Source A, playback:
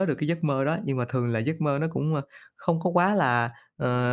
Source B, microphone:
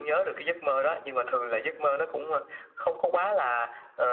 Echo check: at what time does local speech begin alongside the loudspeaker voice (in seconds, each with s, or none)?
none